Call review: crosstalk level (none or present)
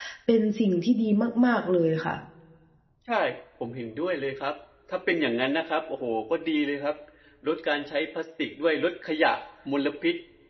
none